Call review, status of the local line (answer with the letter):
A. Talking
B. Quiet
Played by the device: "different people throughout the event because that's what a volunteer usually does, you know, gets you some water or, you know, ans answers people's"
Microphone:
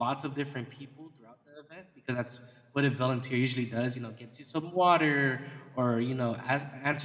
B